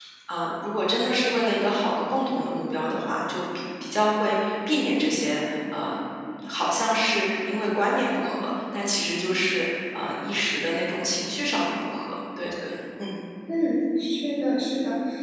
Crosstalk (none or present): none